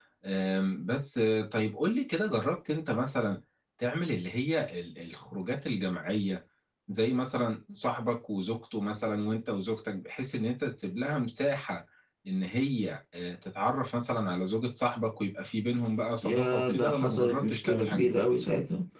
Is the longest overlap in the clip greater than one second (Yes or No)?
Yes